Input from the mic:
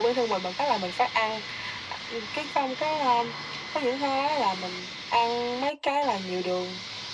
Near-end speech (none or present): none